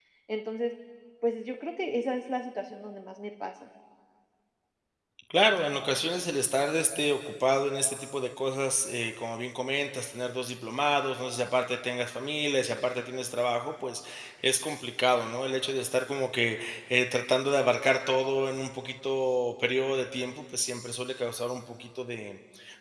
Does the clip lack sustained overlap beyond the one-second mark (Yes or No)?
Yes